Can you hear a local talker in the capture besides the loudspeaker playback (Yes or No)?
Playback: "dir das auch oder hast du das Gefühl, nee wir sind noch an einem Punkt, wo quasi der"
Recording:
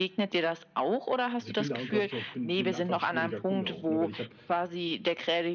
Yes